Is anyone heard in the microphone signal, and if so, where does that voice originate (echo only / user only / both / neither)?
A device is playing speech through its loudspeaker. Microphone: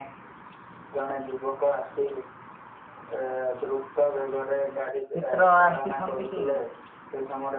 both